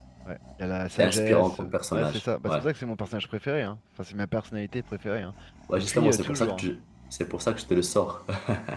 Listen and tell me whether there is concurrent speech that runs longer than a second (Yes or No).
Yes